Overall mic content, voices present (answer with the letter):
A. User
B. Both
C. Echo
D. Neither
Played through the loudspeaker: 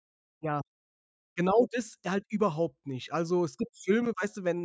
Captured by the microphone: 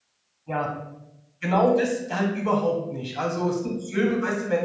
C